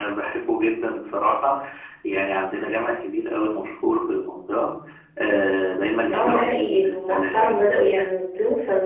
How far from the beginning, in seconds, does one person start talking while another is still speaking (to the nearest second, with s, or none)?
6 s